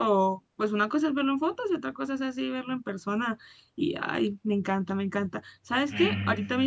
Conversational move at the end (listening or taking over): listening